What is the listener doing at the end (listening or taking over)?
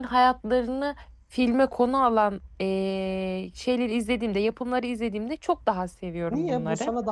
taking over